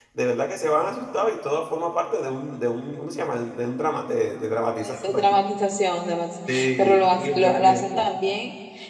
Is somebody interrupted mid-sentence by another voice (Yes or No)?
Yes